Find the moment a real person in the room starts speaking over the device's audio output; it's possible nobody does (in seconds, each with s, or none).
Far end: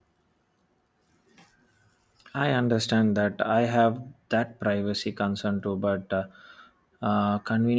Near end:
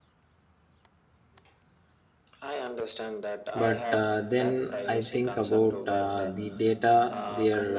3.5 s